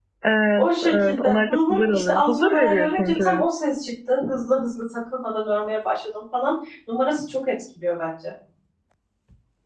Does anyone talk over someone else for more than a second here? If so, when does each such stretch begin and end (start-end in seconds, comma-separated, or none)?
0.6-3.5